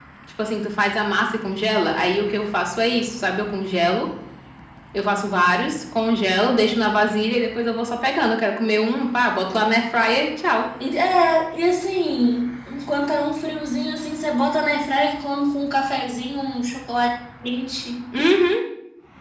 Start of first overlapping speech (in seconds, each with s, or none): none